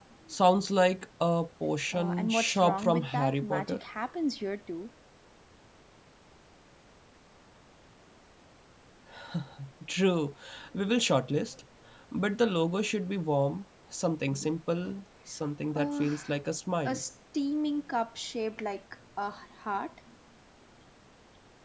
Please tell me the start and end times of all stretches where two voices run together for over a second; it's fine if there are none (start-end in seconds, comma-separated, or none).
1.9-3.8